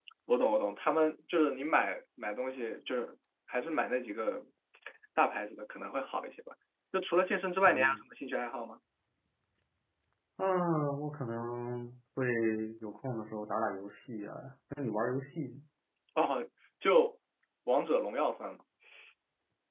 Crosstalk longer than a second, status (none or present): none